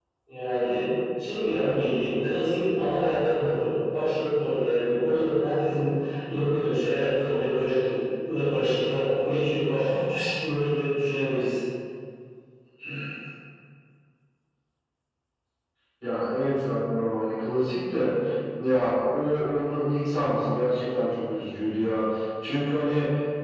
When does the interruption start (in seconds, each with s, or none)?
none